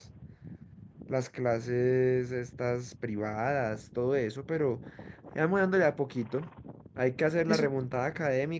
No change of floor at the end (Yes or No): Yes